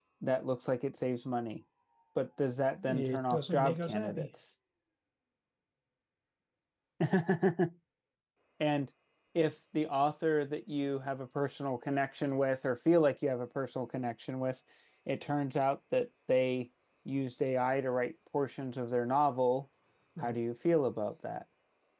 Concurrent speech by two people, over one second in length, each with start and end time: 2.9-4.3

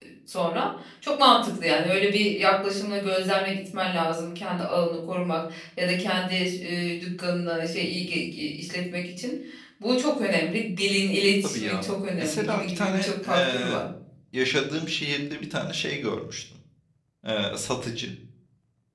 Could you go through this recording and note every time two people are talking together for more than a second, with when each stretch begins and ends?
12.2-13.8

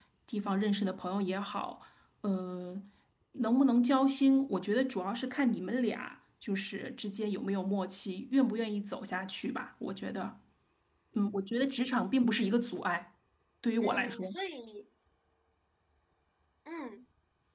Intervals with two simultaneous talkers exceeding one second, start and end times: none

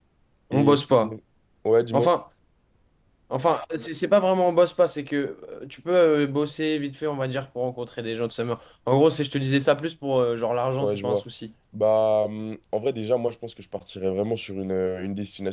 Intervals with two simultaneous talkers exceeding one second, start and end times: none

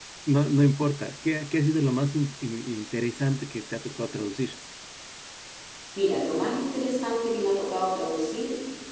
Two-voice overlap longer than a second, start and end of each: none

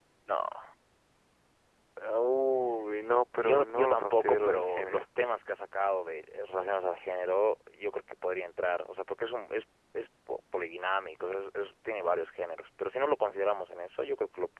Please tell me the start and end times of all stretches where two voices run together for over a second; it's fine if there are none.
3.3-5.0

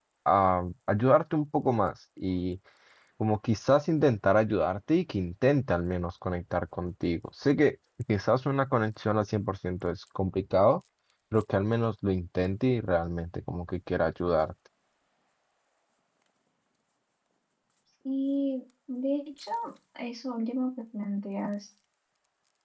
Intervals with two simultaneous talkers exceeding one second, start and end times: none

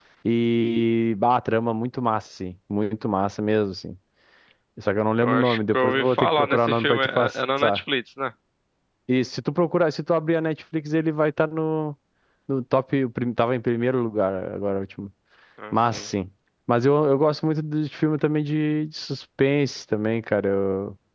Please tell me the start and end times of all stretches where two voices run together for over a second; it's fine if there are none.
5.2-7.8

